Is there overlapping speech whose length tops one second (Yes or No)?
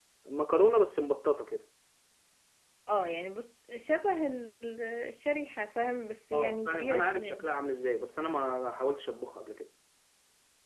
Yes